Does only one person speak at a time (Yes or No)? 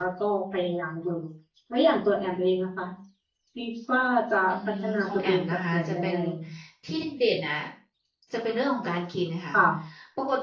No